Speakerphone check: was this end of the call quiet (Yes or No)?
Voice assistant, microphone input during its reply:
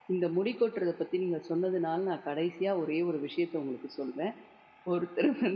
No